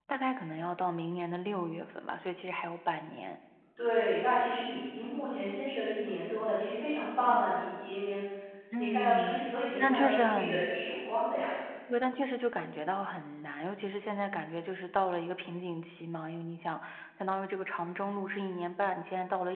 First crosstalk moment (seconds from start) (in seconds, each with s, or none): 8.8 s